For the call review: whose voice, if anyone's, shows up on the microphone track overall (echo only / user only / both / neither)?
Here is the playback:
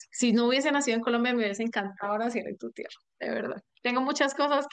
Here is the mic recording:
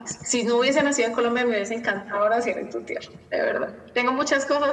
echo only